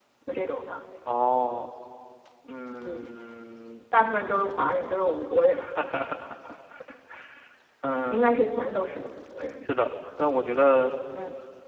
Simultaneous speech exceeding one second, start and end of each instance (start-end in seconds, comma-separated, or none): none